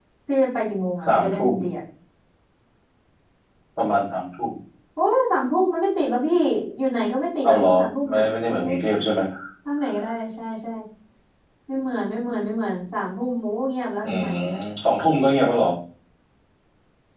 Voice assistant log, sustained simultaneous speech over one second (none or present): present